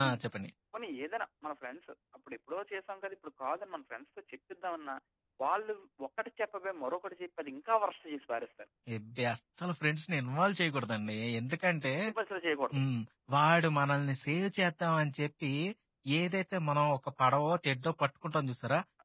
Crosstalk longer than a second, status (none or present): none